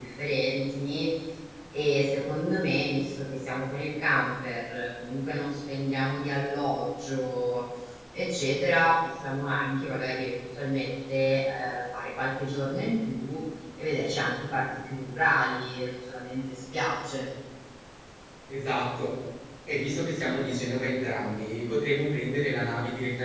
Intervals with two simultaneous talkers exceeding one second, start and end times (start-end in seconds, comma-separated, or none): none